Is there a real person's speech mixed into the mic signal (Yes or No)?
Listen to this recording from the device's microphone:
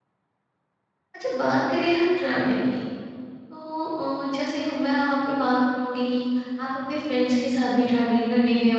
Yes